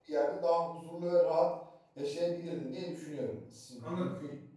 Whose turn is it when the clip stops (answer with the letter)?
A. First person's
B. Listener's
A